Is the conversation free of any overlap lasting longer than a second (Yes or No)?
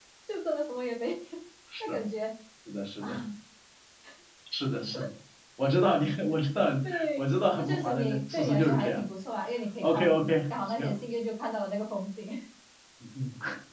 No